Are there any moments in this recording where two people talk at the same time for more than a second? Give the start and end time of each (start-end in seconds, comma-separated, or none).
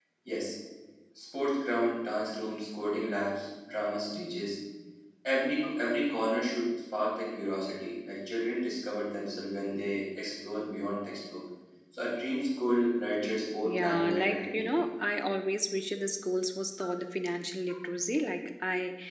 13.6-14.9